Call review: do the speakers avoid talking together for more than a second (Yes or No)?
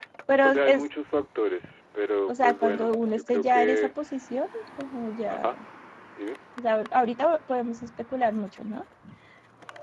No